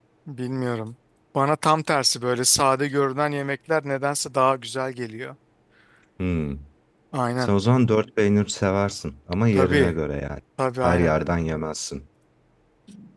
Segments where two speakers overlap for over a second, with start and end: none

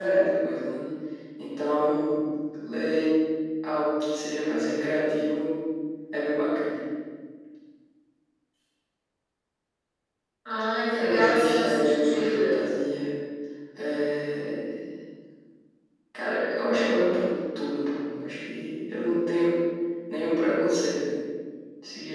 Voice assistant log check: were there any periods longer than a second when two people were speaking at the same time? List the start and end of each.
10.9-12.6

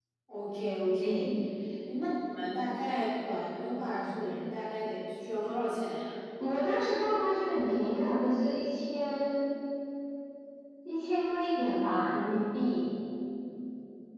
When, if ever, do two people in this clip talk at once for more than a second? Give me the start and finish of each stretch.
none

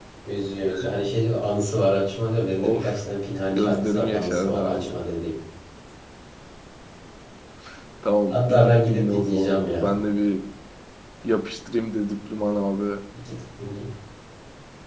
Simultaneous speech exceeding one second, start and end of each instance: 3.6-4.9, 8.3-9.9

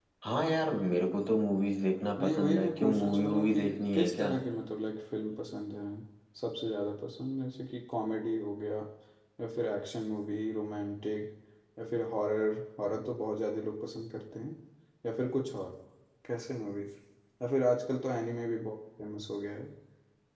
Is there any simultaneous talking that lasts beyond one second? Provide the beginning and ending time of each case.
2.2-4.3

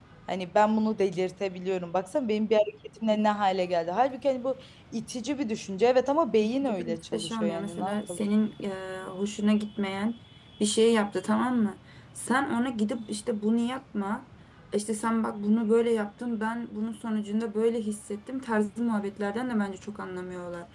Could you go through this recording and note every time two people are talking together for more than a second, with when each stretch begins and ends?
6.4-8.2

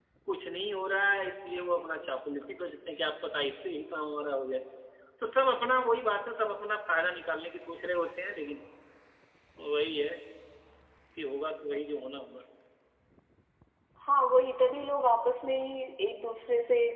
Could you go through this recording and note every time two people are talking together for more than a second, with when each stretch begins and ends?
none

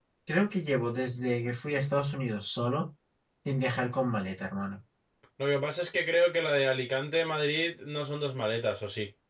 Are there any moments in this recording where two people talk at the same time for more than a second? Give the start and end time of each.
none

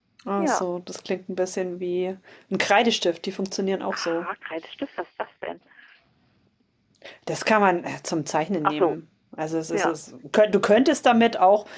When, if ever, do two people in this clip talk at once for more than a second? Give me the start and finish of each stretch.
none

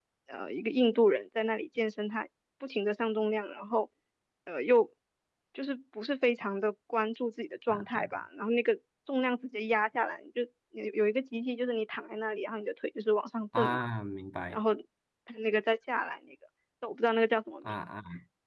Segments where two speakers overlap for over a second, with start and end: none

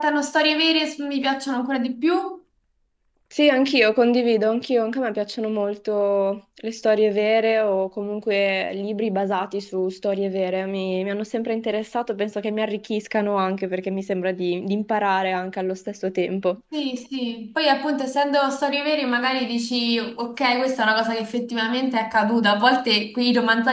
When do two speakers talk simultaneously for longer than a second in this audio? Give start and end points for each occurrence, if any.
none

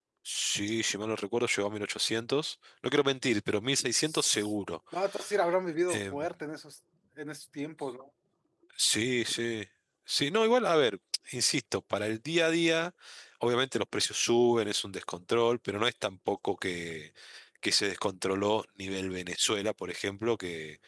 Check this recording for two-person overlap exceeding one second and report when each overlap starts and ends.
none

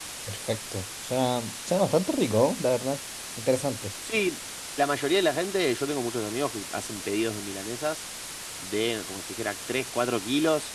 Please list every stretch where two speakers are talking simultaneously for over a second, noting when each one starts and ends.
none

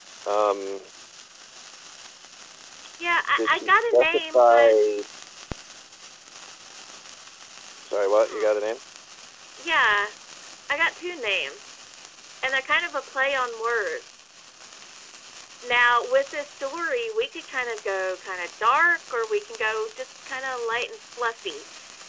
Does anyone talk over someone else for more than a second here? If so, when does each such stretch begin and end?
3.4-4.7

